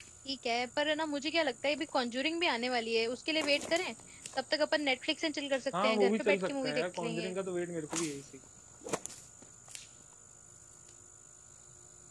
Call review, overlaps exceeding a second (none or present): present